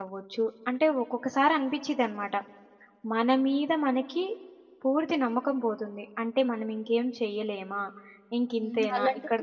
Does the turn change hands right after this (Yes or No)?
Yes